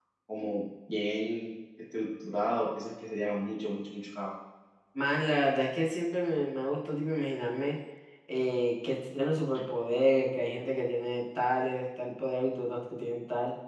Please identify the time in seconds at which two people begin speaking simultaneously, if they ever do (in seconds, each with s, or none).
none